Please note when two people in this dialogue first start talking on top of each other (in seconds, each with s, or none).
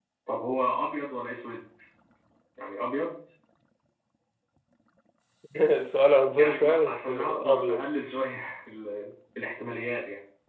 6.4 s